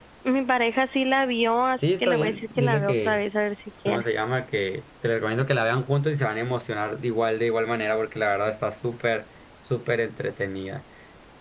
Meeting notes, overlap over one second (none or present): present